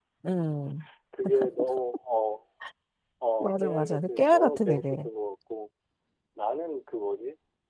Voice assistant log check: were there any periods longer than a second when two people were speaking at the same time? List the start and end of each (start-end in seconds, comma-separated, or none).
3.4-5.1